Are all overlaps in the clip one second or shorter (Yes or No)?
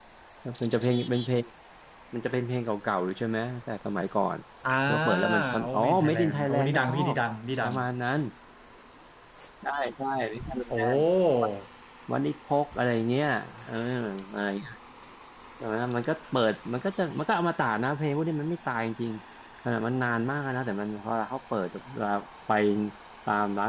No